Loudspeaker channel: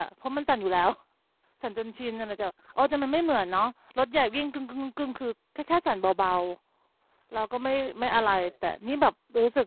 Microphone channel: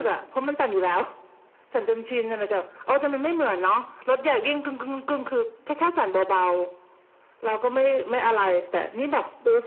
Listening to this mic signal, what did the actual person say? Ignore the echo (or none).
none